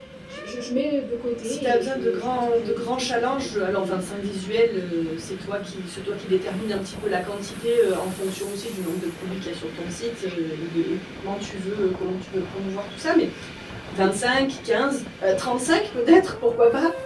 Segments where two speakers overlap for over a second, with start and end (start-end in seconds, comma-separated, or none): 1.4-4.0